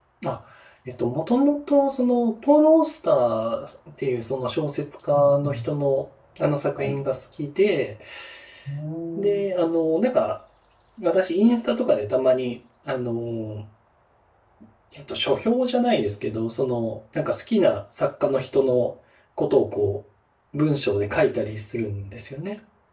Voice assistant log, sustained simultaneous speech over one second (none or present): none